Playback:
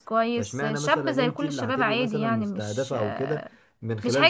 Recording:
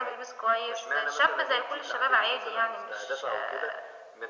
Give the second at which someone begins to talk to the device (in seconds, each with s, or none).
none